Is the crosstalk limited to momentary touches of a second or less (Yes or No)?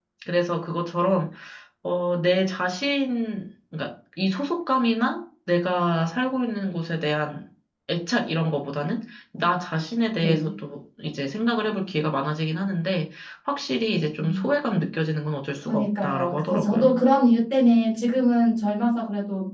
No